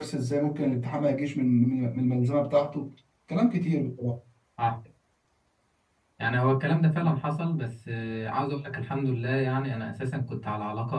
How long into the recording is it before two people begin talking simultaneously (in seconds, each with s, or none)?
none